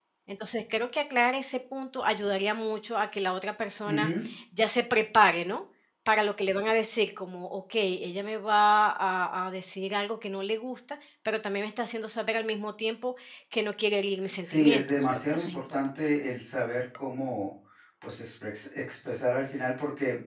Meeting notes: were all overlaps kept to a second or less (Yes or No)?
No